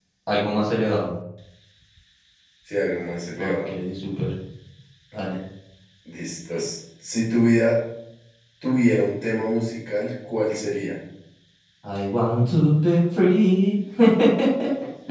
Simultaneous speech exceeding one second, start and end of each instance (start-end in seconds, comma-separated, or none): none